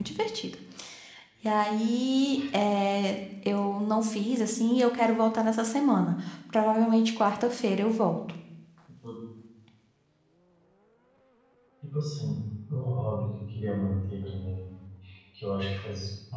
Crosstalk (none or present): none